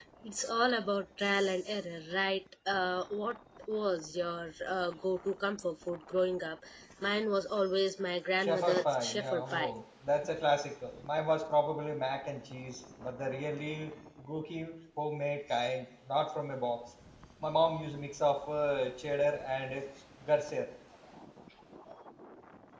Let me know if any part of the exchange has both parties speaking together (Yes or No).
Yes